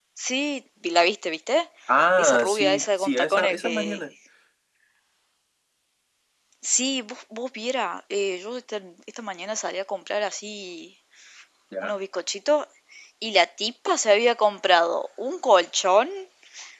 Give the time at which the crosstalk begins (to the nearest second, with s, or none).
2 s